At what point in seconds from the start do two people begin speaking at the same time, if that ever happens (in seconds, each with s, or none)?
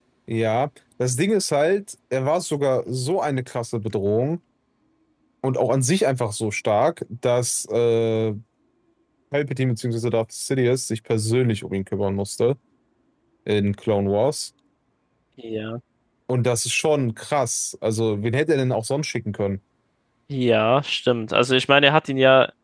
none